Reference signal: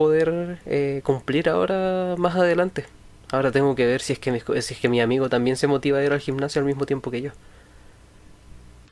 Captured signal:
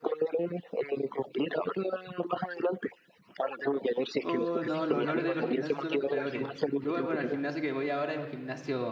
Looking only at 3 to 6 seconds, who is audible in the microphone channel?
both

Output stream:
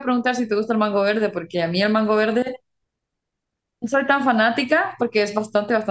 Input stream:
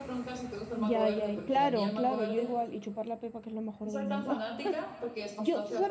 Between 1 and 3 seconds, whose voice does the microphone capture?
both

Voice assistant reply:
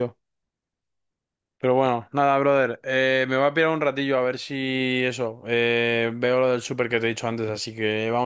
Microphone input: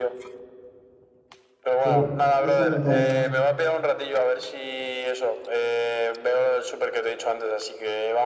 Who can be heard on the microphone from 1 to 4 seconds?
both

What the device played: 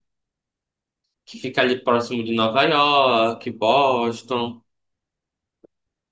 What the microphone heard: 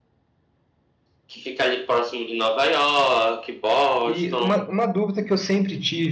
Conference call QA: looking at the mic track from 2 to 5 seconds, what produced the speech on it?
both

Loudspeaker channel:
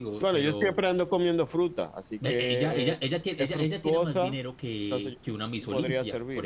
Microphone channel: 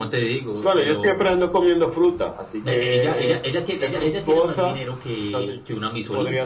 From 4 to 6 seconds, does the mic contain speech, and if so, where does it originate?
echo only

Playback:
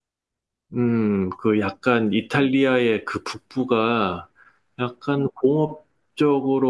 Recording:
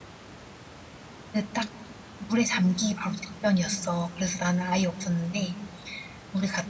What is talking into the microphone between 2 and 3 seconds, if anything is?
user only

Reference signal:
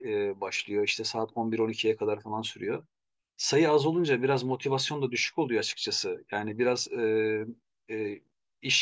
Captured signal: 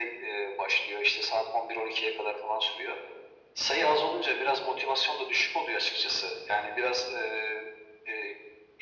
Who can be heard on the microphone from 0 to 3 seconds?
echo only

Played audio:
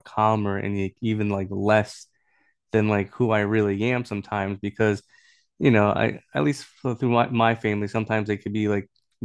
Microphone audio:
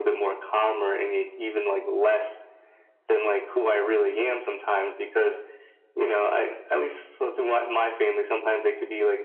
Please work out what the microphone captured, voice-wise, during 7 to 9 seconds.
echo only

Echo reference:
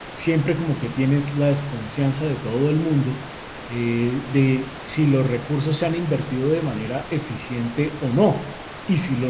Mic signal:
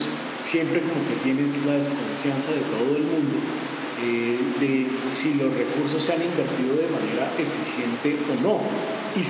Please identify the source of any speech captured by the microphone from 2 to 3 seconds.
echo only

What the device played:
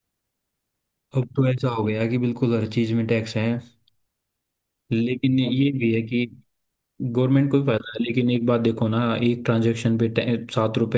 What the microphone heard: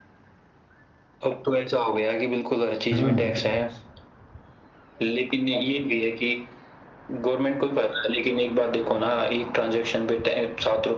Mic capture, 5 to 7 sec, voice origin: echo only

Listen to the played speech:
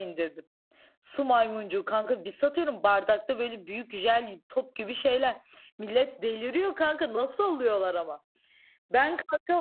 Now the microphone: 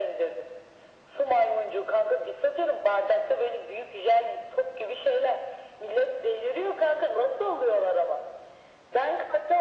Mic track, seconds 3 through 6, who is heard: echo only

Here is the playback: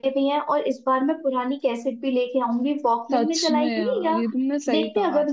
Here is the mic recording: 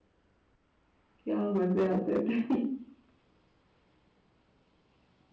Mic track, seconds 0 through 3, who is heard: user only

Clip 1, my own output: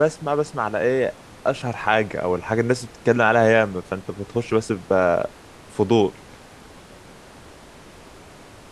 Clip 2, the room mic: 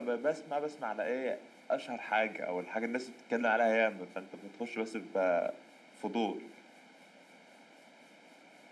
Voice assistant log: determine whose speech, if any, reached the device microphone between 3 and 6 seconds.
echo only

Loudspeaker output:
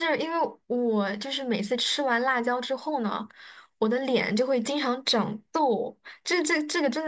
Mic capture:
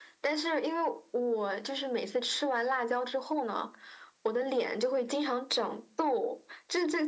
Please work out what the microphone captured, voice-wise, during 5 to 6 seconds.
echo only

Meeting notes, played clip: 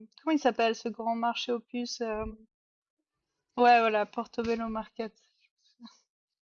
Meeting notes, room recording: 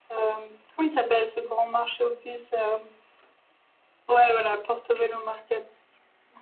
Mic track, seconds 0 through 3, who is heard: echo only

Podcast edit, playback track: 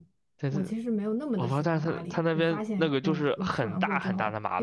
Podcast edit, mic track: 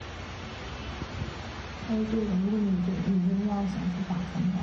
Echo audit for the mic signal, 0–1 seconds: neither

